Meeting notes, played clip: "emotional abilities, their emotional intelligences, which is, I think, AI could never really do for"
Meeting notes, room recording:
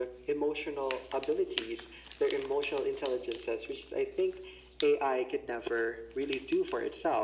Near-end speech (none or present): none